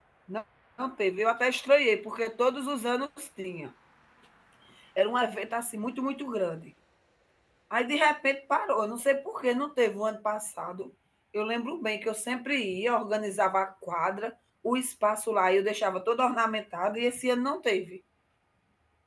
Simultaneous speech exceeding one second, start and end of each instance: none

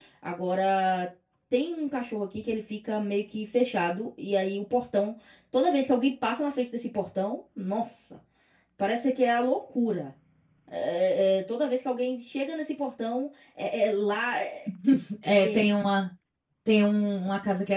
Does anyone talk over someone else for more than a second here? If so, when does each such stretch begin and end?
none

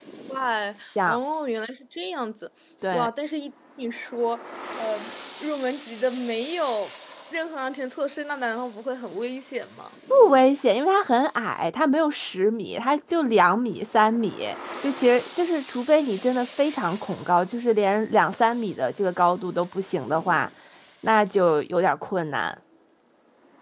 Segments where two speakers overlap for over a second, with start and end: none

